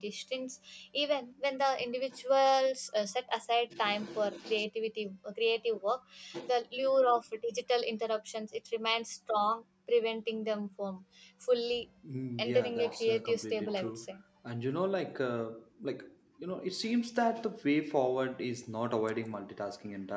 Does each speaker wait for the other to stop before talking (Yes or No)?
No